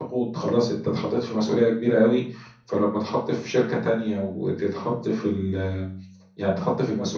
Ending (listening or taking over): listening